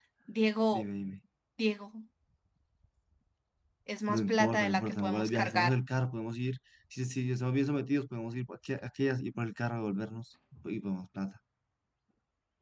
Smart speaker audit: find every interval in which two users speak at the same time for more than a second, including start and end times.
4.1-5.8

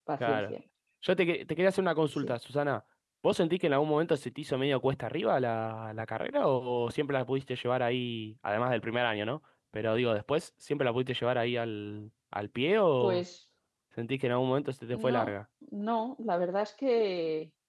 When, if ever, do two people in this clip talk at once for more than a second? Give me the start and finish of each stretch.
none

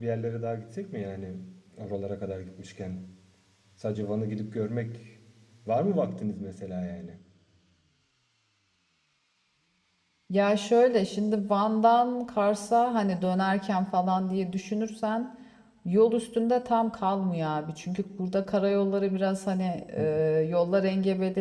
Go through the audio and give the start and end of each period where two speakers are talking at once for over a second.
none

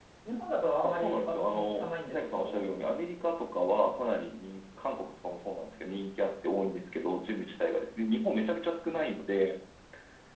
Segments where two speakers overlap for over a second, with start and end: 0.8-2.6

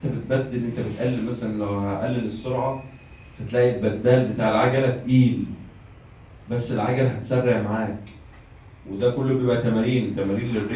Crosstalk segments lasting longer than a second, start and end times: none

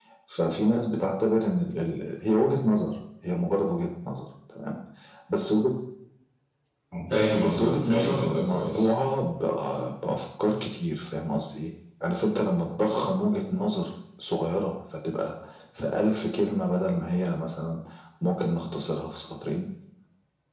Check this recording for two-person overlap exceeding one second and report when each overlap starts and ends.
7.4-8.8

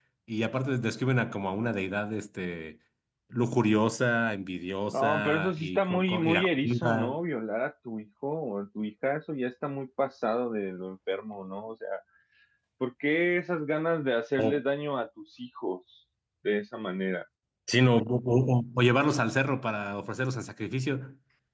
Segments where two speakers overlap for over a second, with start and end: 4.9-7.2

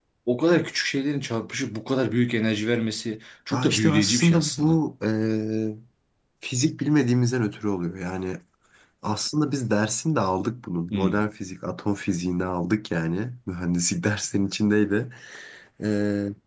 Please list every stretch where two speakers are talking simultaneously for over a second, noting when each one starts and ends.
3.5-4.8

